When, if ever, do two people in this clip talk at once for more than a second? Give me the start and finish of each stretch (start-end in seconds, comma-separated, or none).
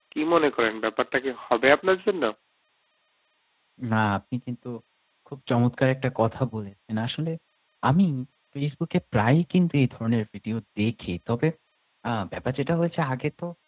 none